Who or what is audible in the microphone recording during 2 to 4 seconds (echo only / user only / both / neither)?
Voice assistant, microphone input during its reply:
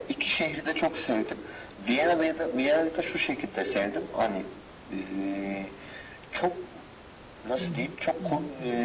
echo only